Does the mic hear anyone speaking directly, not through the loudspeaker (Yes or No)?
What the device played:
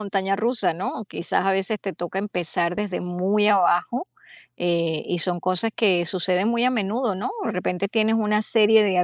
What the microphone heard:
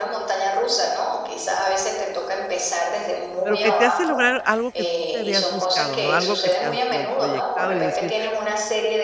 Yes